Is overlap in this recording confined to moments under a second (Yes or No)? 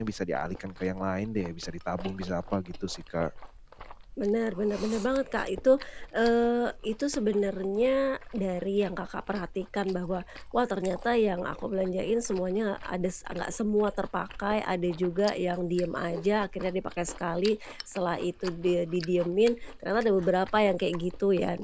Yes